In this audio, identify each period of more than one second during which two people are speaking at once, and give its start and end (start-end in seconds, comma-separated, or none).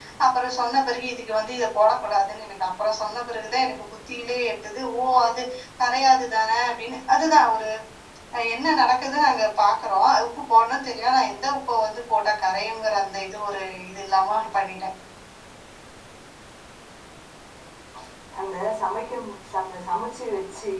none